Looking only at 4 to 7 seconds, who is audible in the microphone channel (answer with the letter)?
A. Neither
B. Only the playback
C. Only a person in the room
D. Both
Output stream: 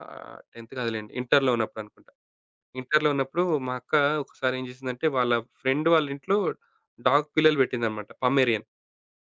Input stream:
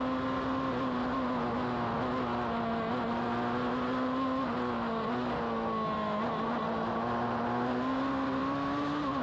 A